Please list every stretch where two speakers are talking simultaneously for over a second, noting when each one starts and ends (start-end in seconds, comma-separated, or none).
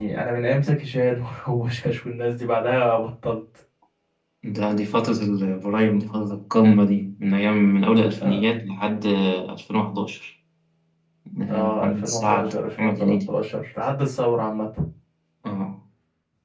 11.5-13.4